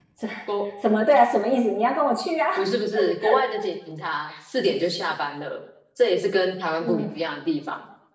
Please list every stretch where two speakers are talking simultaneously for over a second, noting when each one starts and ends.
none

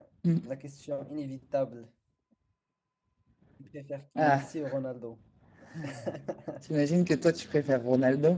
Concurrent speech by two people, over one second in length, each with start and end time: none

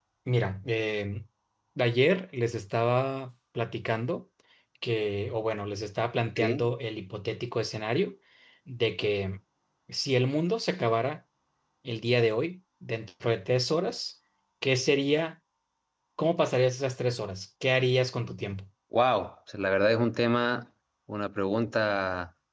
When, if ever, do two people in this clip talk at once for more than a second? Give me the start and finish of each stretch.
none

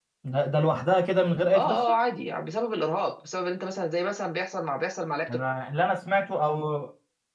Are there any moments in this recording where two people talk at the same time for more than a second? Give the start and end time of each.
none

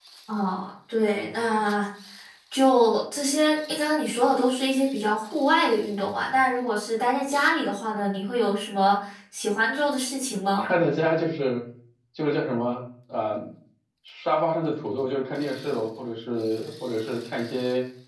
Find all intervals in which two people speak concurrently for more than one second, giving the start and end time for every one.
none

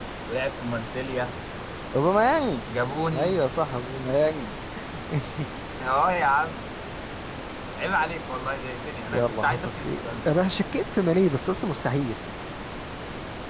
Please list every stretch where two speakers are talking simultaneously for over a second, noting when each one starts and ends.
9.1-10.3

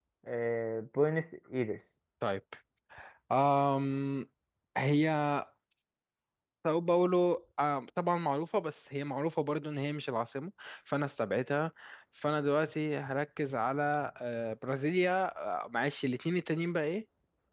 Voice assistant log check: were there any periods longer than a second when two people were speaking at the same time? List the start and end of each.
none

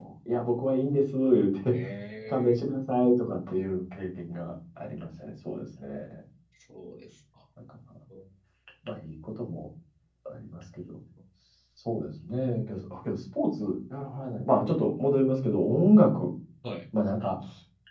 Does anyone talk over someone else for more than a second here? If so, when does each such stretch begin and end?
none

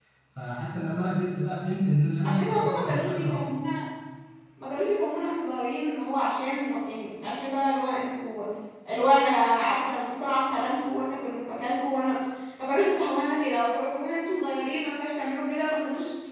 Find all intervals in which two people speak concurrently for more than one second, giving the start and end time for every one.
2.2-3.4

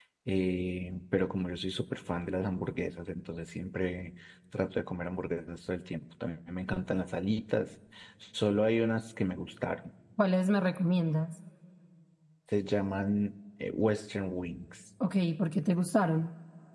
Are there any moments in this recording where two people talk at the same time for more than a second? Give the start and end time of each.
none

